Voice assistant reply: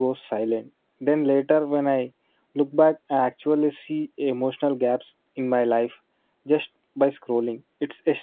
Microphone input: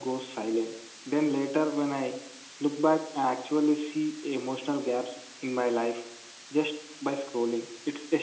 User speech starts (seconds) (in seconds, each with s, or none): none